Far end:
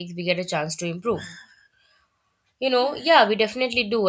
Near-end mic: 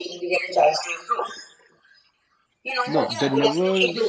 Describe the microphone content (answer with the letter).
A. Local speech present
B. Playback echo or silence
A